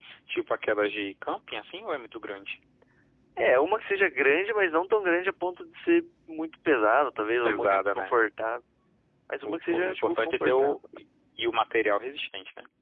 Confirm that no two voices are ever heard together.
No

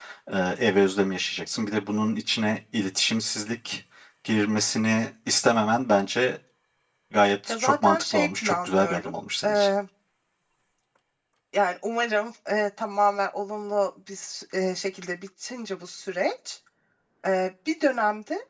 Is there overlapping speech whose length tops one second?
Yes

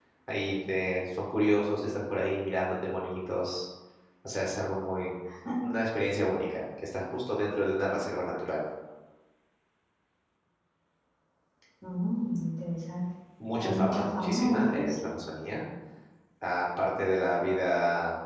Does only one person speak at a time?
No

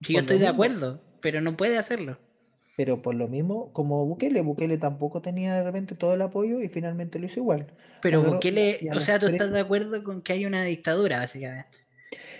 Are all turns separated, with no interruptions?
No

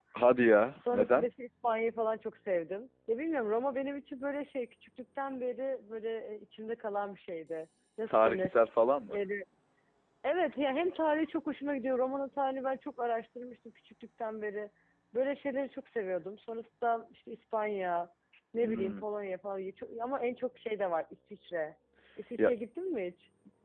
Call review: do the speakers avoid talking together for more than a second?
Yes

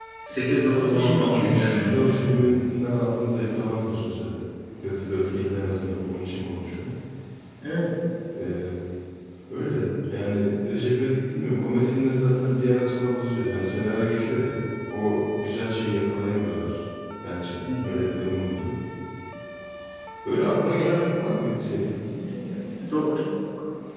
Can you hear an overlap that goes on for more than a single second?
Yes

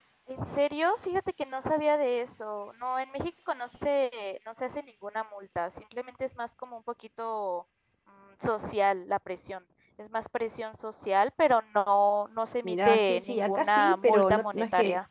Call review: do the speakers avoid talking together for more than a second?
No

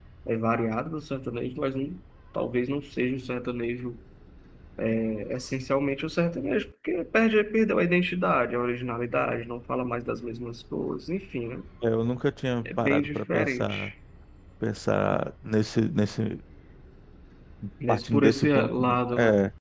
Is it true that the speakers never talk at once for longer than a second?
No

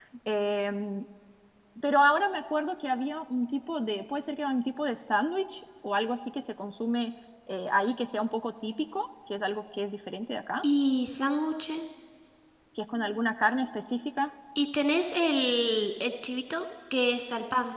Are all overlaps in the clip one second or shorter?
Yes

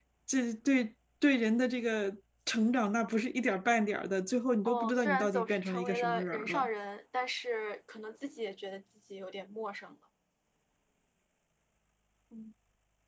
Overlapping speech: Yes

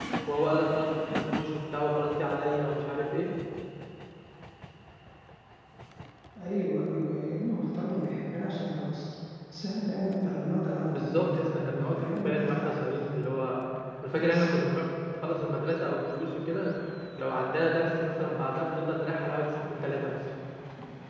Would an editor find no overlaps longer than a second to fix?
No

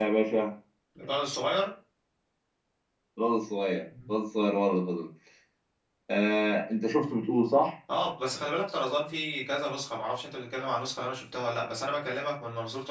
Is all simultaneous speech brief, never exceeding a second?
Yes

